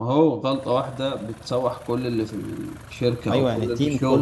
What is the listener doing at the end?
taking over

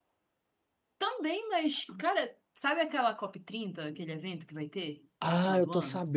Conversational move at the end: taking over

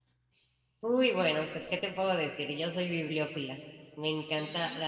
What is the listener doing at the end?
listening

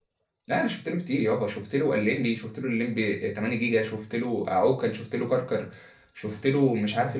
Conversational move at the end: listening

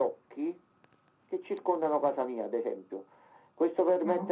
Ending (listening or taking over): listening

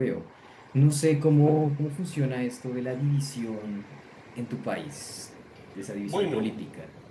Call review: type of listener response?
taking over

